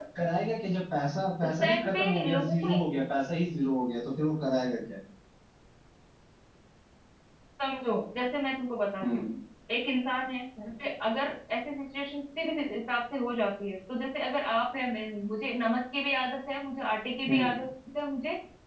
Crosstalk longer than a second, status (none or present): present